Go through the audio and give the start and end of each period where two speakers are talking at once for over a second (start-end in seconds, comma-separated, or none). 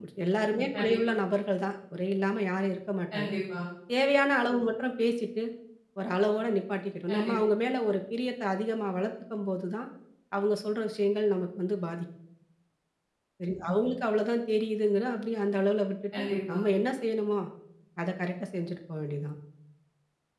none